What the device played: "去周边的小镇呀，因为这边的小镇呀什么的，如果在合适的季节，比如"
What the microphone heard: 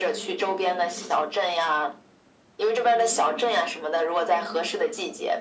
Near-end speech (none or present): present